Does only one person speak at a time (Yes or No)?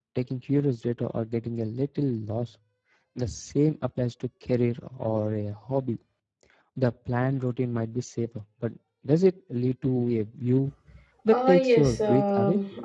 No